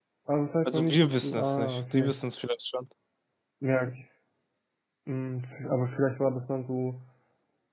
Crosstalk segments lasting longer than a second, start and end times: 0.6-2.2

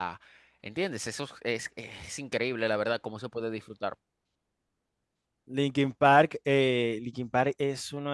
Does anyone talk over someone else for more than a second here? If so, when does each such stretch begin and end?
none

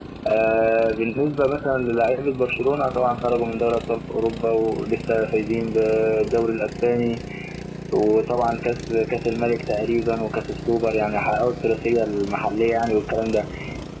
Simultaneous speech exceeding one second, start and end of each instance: none

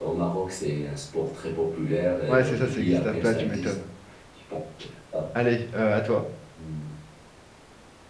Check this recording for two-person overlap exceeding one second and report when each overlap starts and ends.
2.3-3.8

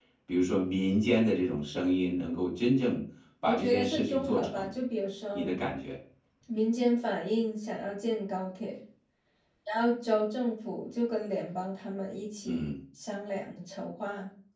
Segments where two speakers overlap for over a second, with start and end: 3.4-4.7

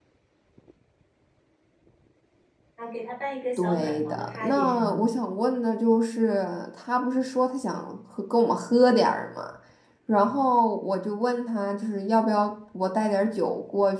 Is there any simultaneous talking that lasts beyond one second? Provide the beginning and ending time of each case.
3.6-5.0

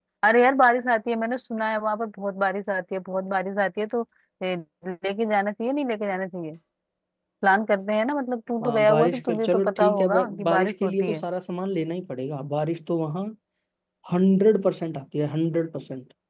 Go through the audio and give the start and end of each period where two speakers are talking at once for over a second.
8.6-11.2

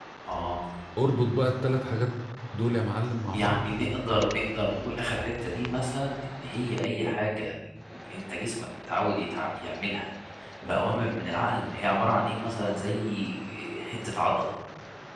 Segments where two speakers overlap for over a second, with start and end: none

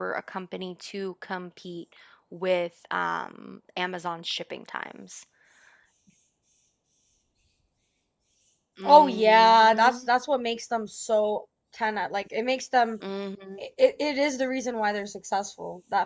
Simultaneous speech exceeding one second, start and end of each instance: 8.8-10.1

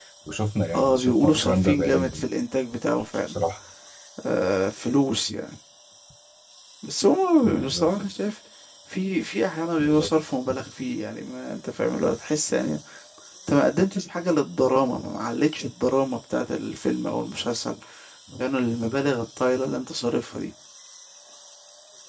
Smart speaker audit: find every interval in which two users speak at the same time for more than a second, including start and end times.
0.7-2.2

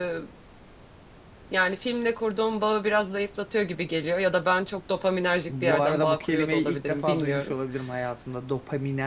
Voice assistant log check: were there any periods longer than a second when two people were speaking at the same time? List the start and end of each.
5.5-7.5

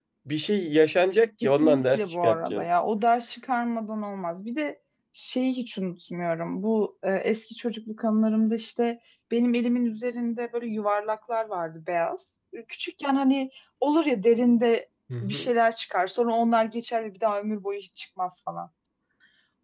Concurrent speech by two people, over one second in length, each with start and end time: 1.4-2.7

